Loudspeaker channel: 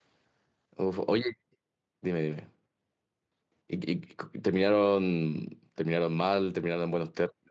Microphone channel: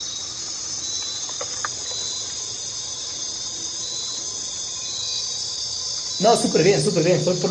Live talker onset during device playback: 6.2 s

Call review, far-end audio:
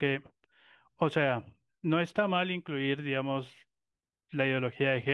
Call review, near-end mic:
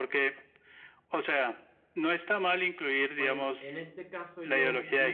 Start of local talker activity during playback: 3.1 s

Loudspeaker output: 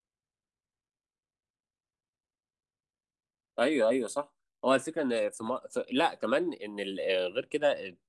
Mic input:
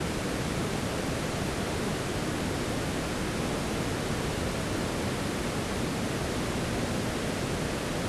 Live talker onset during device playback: none

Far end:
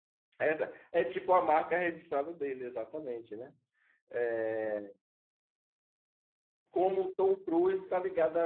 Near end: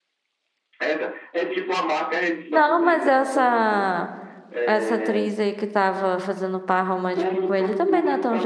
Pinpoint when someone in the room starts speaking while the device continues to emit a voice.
2.5 s

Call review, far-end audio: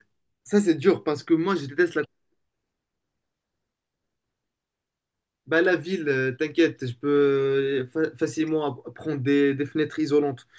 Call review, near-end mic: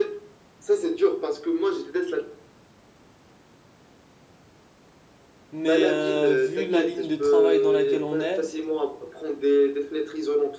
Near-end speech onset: 5.5 s

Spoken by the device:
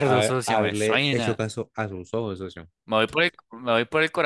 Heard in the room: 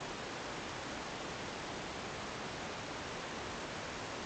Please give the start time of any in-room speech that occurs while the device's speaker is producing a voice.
none

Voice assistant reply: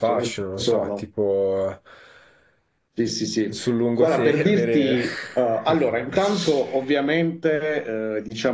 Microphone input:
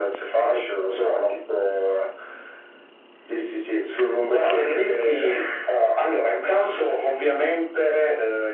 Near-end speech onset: none

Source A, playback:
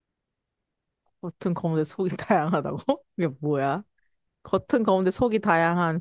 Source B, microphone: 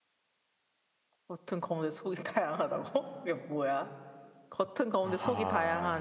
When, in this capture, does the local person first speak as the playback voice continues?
5.0 s

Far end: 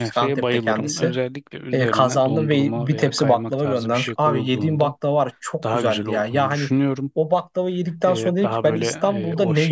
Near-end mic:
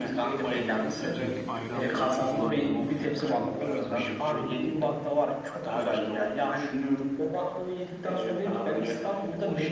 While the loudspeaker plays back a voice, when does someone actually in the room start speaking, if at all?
0.5 s

